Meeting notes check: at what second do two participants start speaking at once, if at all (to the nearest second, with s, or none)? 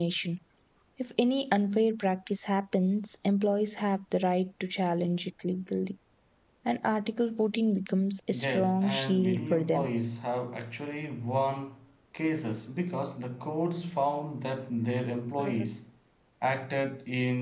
8 s